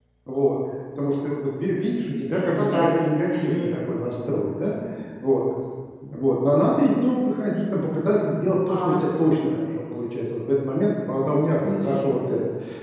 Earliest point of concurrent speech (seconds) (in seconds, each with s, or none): 2.4 s